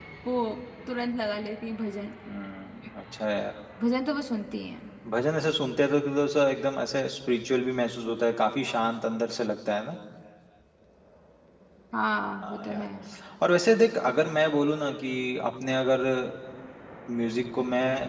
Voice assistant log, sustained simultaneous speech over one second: none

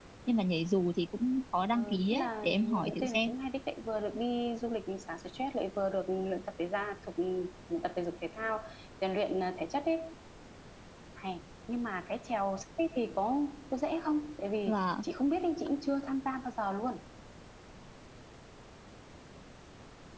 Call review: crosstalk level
present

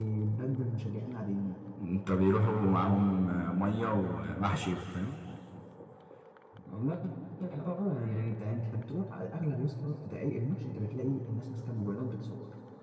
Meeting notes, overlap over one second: none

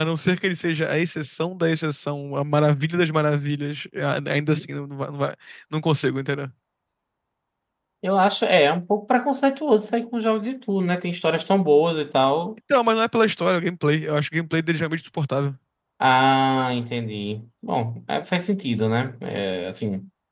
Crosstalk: none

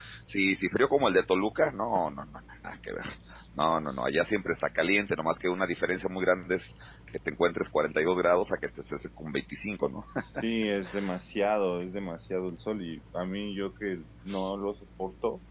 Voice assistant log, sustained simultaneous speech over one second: none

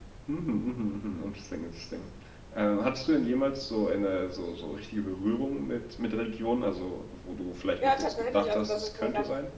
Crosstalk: present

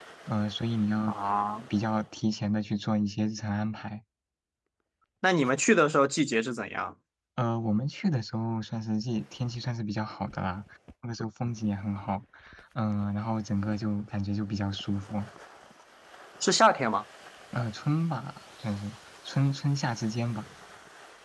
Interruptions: none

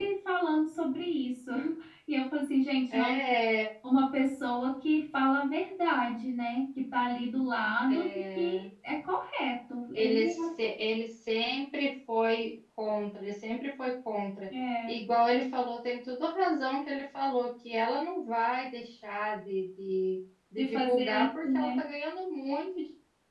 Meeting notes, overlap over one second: present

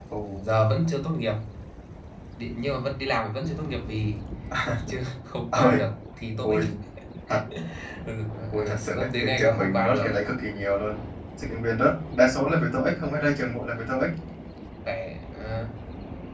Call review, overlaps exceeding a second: present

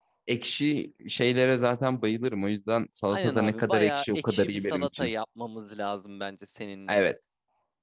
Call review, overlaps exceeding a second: present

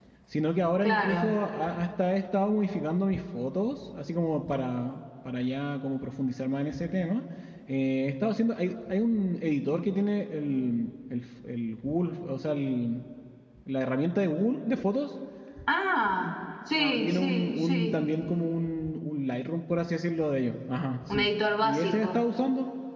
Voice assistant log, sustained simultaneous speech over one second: present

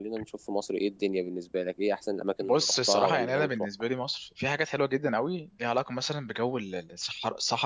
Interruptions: present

